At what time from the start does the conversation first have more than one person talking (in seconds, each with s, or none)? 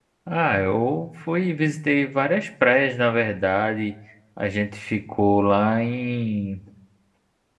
none